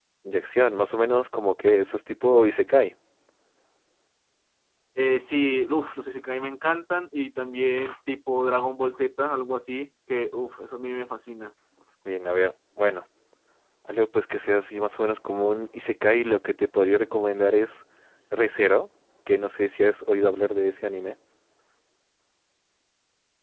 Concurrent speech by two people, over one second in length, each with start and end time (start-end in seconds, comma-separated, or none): none